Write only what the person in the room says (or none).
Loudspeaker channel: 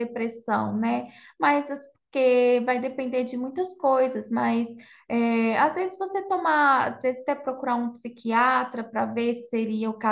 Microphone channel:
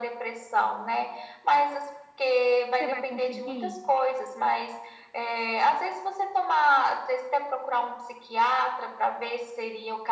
Você vai conseguir?